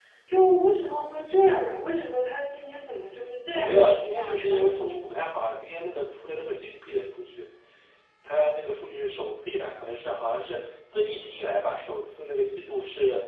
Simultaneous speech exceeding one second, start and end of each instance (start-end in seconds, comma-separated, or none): 3.5-5.1